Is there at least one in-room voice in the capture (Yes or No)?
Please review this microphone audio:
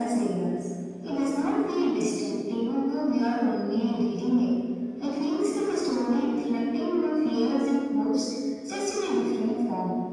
No